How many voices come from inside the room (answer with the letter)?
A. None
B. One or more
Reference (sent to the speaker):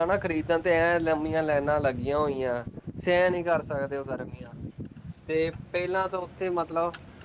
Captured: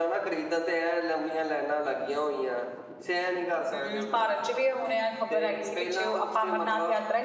B